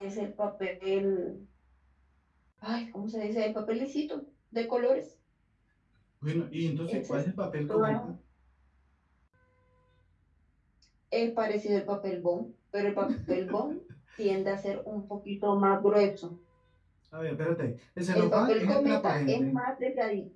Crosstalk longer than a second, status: present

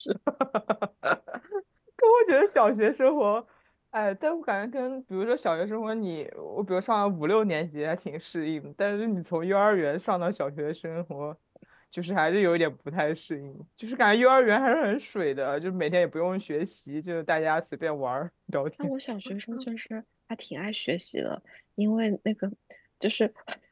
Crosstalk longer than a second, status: none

